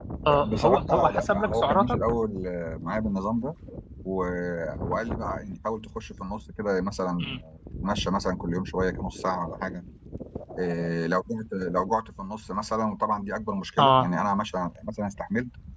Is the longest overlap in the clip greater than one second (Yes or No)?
Yes